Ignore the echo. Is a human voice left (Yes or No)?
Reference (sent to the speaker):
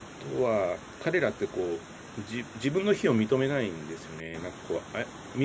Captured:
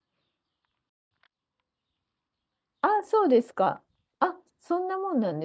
Yes